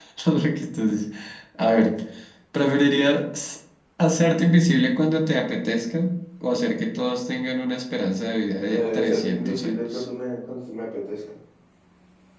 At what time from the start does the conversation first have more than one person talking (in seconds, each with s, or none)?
8.7 s